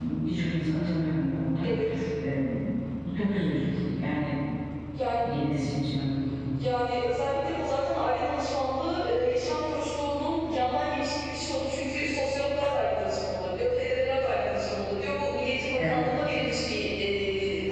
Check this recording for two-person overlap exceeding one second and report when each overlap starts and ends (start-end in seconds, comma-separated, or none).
none